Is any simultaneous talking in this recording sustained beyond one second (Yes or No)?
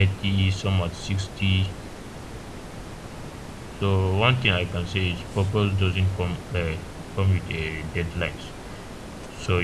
No